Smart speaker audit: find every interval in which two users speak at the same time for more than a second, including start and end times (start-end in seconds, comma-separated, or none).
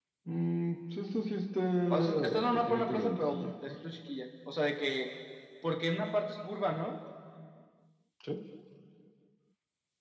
1.9-3.4